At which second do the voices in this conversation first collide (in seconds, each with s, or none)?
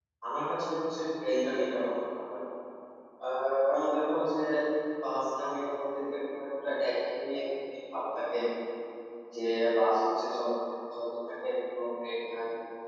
none